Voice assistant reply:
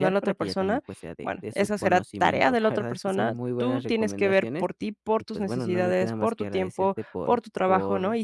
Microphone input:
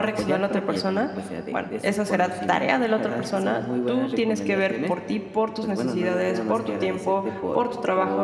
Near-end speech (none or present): none